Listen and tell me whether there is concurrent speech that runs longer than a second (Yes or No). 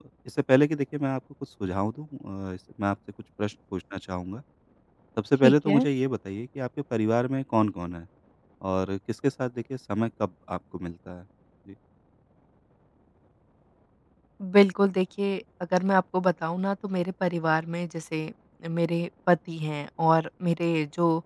No